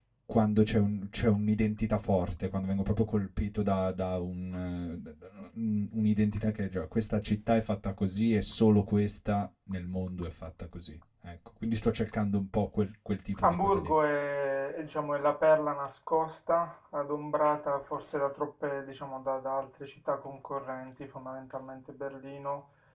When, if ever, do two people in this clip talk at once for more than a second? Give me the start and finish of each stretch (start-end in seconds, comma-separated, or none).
none